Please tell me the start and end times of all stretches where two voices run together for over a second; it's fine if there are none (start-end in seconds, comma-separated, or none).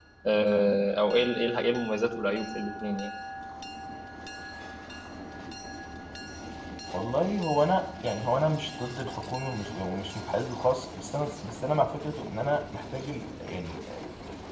none